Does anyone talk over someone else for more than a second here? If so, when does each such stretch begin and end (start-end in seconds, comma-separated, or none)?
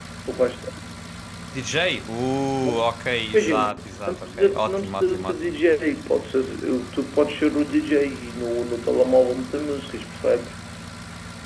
3.3-5.5